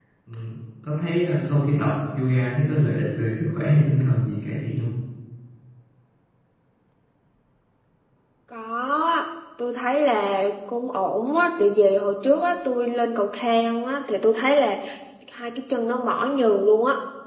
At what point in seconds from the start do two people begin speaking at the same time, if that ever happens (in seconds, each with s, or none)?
none